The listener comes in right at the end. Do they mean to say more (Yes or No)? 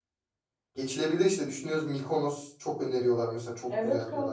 Yes